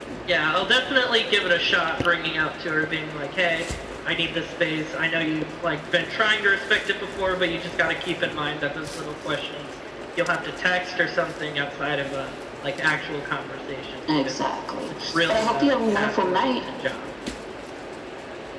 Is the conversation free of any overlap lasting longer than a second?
No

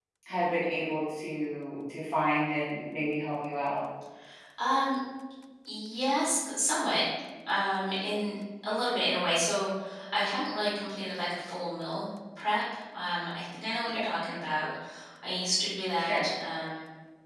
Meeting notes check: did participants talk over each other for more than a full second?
No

